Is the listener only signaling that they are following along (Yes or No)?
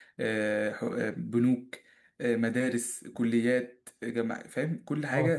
Yes